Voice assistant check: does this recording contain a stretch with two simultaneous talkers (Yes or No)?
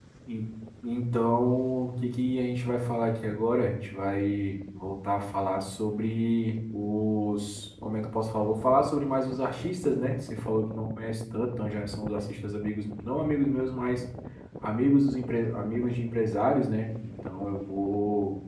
No